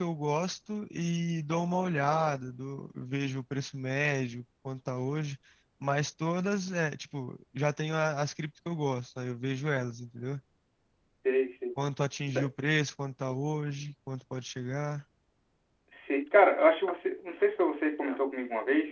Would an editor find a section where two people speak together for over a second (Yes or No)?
No